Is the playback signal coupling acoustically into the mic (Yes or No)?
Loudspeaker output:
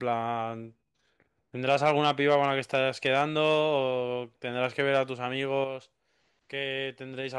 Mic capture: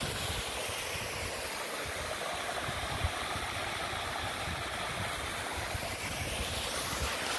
No